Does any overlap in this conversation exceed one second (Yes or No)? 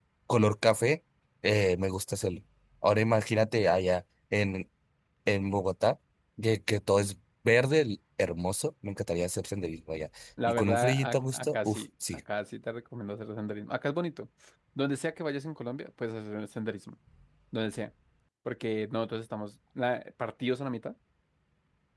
Yes